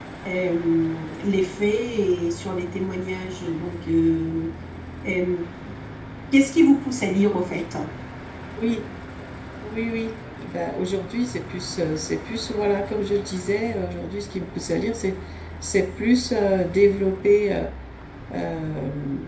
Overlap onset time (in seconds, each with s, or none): none